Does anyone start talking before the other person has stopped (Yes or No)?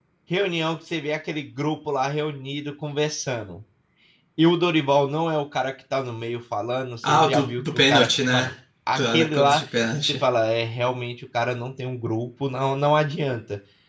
Yes